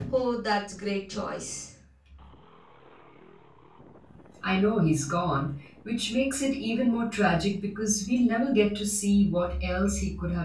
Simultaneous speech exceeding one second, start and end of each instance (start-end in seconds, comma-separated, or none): none